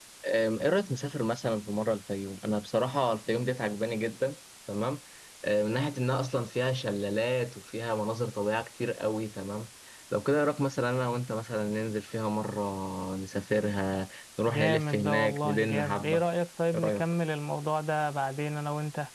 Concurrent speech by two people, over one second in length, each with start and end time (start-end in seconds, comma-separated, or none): 14.5-16.2